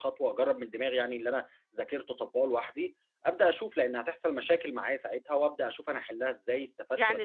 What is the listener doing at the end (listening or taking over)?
taking over